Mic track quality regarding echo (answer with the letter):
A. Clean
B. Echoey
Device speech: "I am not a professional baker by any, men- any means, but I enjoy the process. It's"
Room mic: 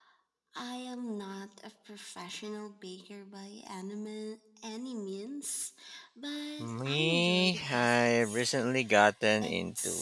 B